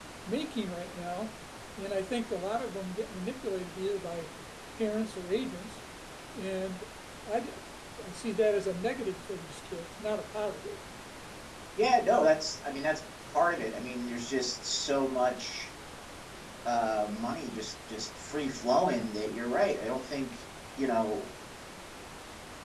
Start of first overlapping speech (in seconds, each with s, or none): none